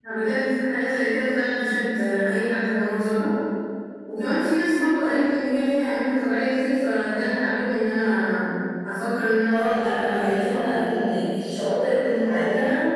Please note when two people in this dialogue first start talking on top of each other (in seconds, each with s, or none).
9.5 s